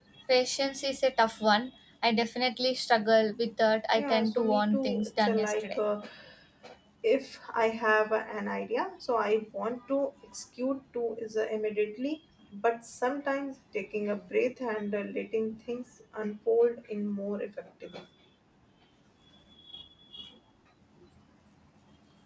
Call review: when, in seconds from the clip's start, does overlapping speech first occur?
4.0 s

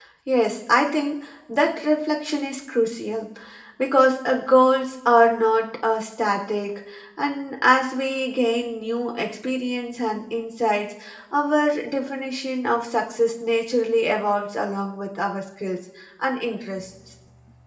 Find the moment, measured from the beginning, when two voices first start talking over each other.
none

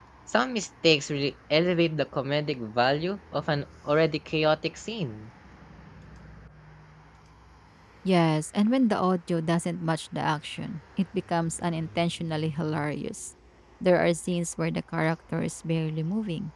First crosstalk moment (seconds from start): none

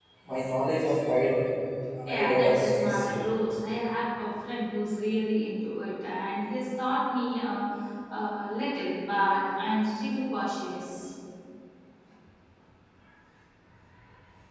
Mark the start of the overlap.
2.1 s

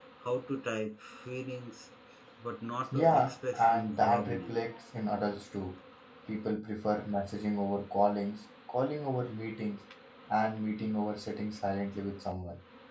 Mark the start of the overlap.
2.9 s

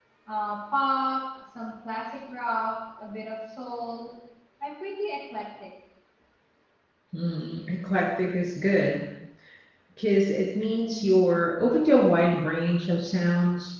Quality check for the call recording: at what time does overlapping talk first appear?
none

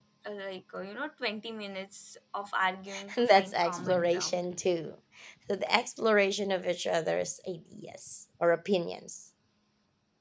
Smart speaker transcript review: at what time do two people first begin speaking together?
2.9 s

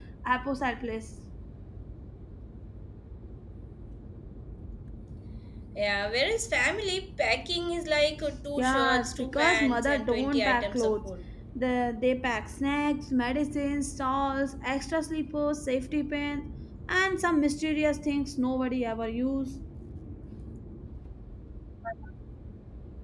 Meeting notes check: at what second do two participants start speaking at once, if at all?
8.6 s

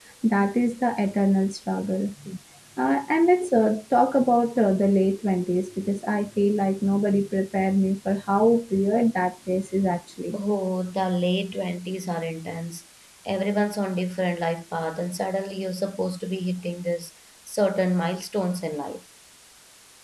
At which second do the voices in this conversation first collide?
none

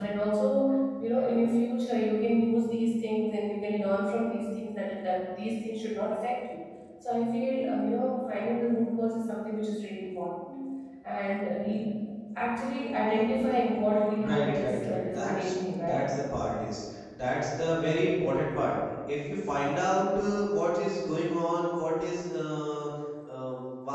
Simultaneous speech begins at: 14.1 s

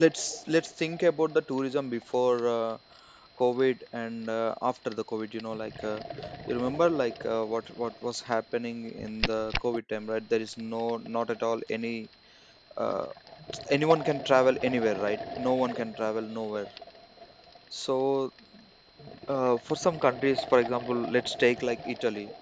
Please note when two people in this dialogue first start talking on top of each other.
none

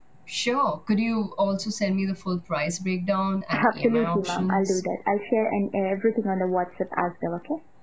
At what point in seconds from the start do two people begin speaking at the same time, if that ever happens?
3.5 s

